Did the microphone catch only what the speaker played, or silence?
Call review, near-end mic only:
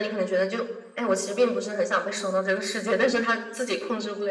Yes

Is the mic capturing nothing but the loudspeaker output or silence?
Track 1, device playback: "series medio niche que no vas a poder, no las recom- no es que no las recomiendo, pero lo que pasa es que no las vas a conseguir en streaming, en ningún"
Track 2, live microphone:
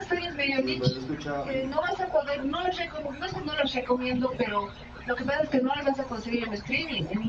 No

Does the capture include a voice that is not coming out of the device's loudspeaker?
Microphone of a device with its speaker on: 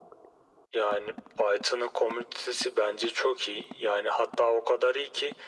No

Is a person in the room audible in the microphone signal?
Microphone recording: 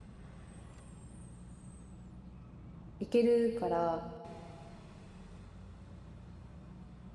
Yes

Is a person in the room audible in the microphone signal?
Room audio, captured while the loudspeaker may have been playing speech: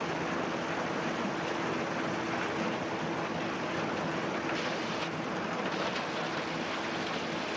No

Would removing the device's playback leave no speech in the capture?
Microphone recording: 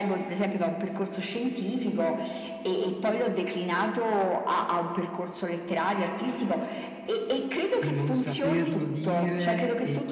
No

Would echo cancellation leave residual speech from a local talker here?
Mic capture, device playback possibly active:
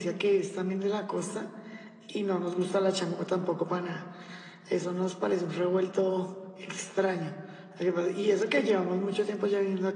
No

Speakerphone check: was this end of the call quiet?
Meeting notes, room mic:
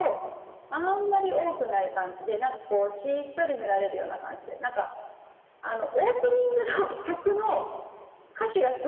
Yes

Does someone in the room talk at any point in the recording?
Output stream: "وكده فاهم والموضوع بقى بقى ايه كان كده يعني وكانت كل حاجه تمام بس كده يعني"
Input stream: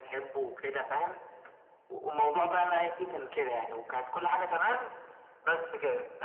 No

